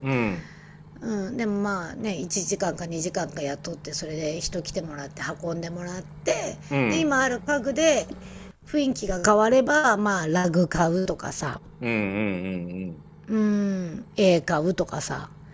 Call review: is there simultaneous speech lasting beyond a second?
No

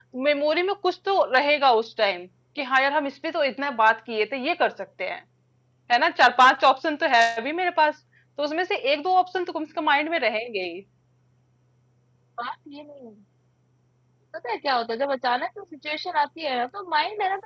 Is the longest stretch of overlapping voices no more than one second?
Yes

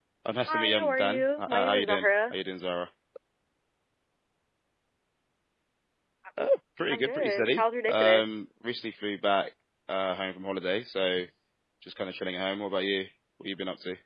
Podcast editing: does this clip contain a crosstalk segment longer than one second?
Yes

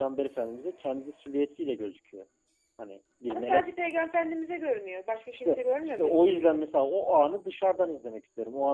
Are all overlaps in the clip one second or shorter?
No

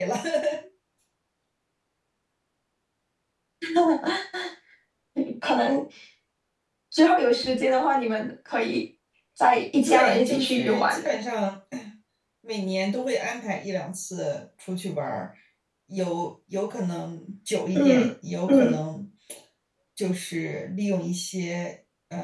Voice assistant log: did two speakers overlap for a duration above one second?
Yes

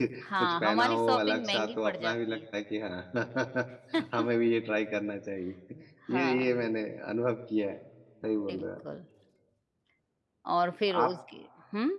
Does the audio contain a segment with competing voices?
Yes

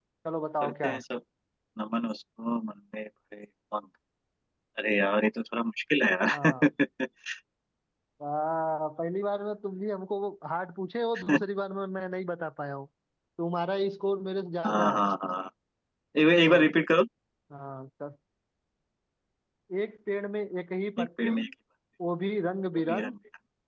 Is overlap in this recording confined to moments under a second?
Yes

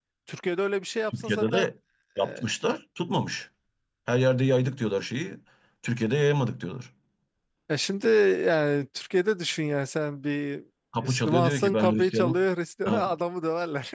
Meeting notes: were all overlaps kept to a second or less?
No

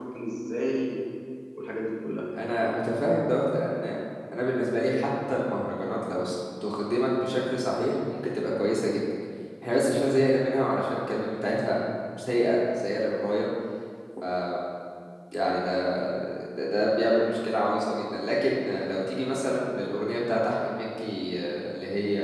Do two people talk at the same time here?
No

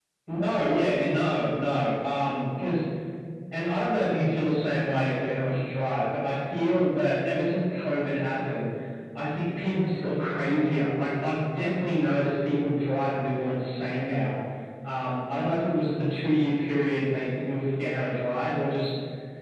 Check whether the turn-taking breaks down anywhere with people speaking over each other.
No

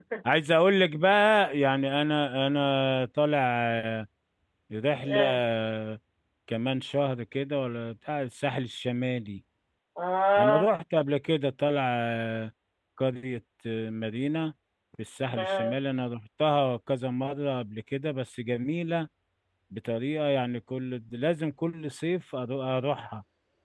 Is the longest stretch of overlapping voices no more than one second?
Yes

